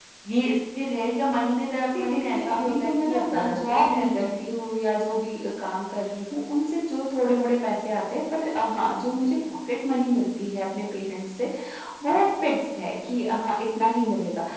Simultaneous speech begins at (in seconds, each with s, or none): 1.9 s